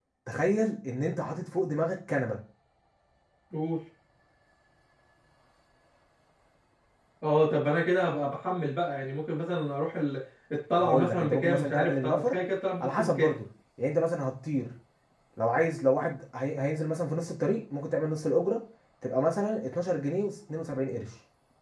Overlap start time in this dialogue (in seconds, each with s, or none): 10.8 s